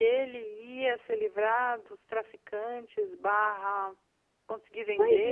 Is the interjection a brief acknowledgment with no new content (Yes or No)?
No